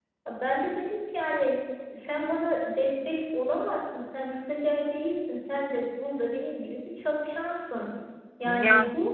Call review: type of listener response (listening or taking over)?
listening